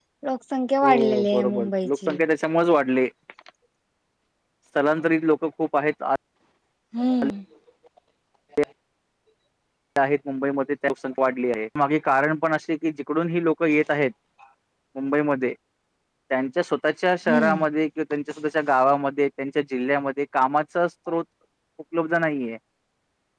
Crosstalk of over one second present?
Yes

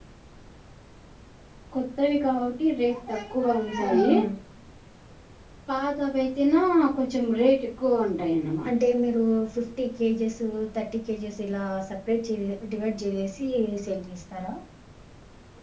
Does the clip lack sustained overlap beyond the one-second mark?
Yes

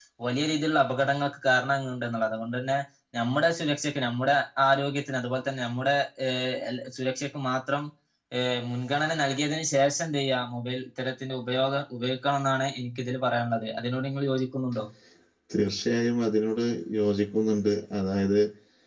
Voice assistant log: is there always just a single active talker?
Yes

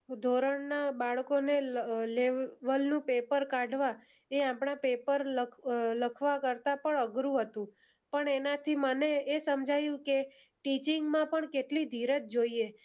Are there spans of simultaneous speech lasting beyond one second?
No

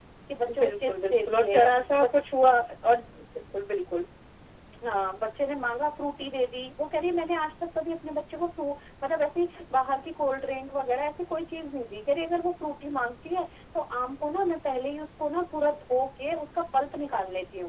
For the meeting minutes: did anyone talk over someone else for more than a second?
Yes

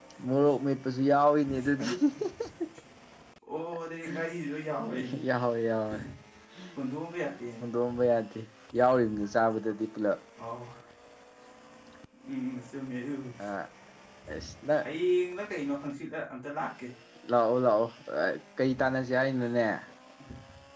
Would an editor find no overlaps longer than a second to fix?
Yes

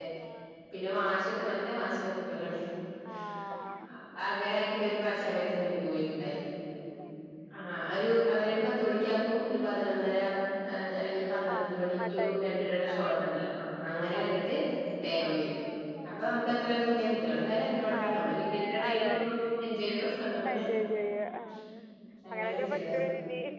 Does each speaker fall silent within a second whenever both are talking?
No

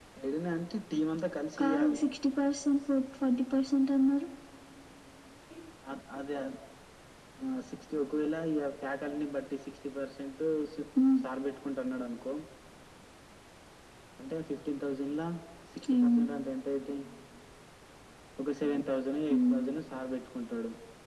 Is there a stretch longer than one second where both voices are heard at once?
No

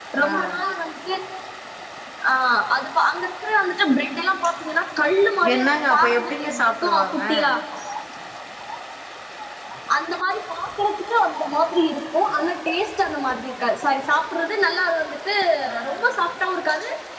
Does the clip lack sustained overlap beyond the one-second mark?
No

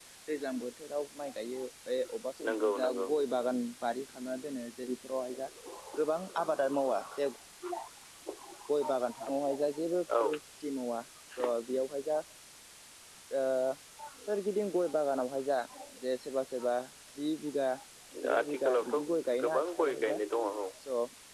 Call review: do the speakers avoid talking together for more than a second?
No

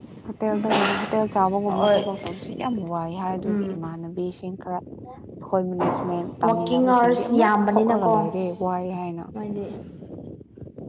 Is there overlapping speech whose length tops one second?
Yes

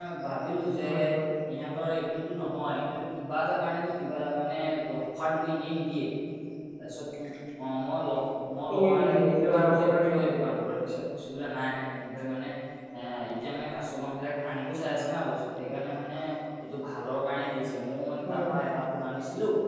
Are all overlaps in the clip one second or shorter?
No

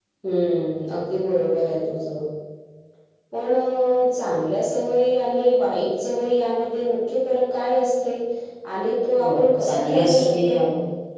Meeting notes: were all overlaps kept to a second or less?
No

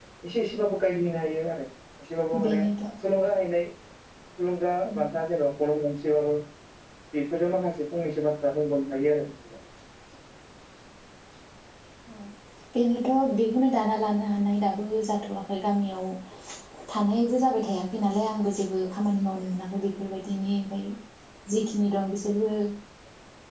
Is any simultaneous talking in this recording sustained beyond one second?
No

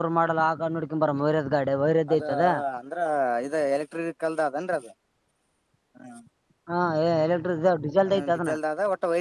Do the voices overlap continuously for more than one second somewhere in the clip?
No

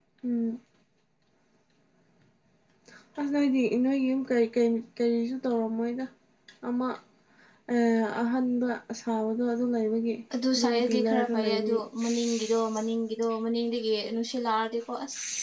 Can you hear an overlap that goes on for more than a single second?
Yes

